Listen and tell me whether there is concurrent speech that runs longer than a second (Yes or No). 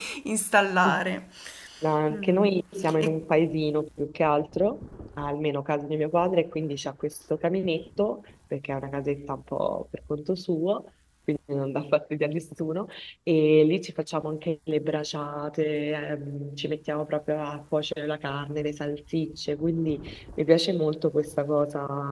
No